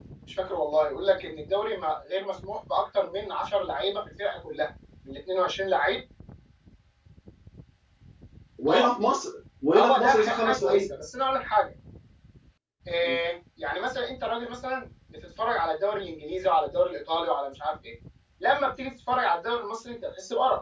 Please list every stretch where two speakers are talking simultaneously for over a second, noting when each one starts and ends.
9.7-10.9

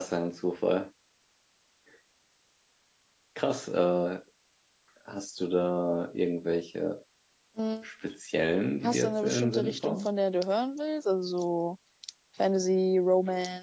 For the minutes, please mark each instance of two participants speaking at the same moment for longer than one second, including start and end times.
8.8-10.1

